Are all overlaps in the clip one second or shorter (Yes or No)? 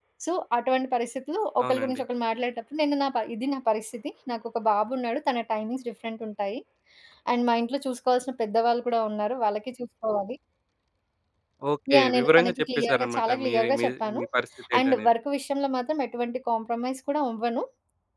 No